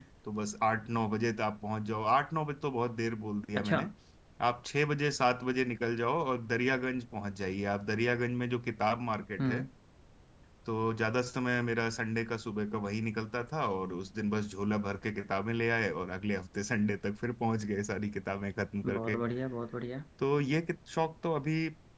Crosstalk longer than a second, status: none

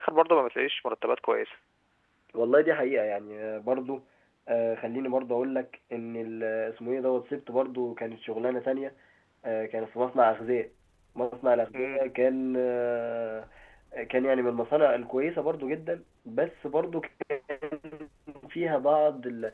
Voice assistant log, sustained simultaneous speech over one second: none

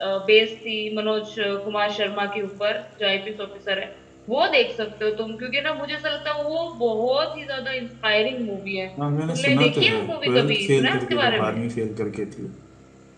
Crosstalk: present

